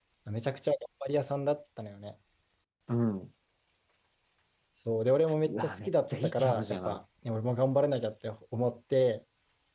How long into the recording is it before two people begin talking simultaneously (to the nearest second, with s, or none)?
5 s